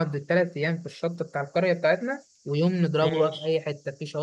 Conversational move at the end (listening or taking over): listening